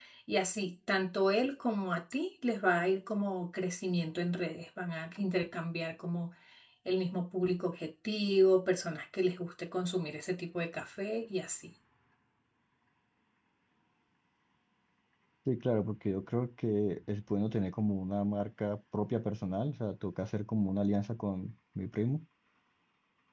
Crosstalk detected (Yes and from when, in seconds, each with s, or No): No